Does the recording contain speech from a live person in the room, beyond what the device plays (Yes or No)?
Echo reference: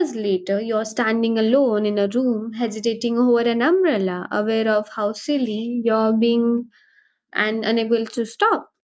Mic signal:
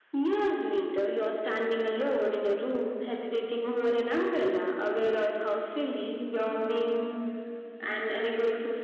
No